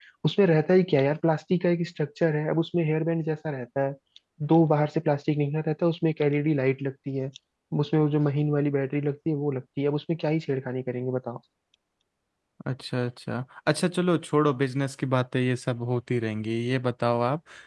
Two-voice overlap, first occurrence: none

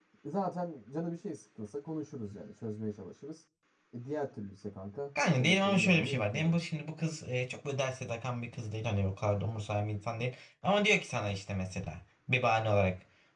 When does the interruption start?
5.2 s

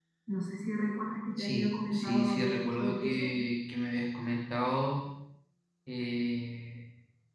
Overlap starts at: 1.4 s

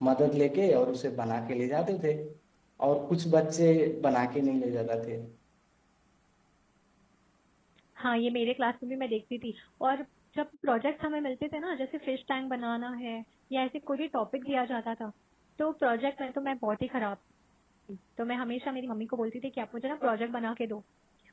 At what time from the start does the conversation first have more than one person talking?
none

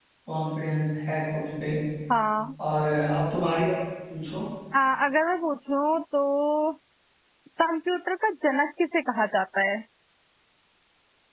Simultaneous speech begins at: none

